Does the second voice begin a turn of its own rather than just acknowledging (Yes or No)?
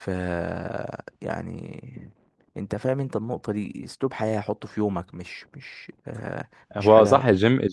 Yes